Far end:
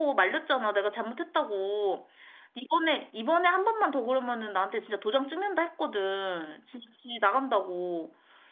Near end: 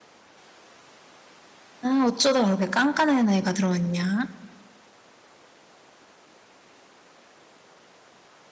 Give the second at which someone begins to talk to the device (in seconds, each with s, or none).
1.8 s